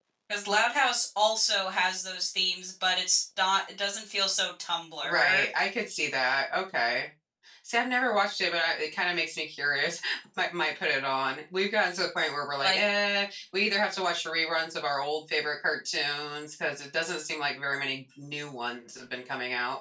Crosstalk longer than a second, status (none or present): none